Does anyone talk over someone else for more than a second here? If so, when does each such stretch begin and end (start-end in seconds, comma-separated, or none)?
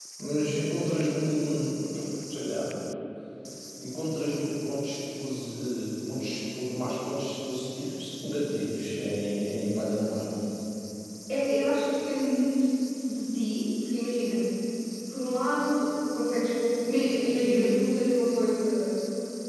none